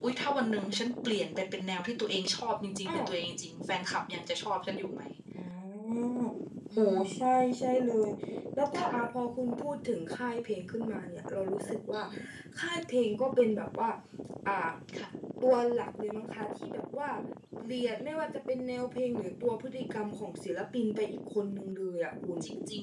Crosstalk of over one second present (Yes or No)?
No